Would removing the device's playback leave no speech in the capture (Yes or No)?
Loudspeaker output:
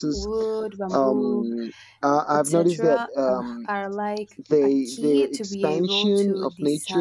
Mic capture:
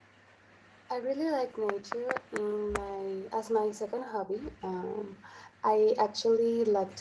No